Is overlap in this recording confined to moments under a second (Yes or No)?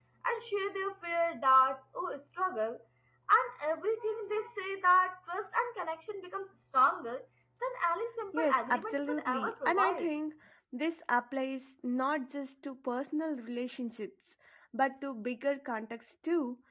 No